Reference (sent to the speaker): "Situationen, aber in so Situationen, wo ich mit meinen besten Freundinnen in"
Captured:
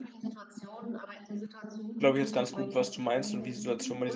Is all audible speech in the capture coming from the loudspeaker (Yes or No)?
No